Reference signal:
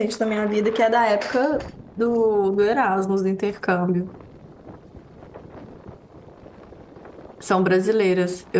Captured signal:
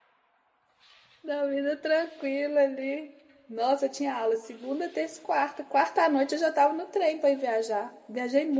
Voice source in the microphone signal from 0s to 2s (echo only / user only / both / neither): user only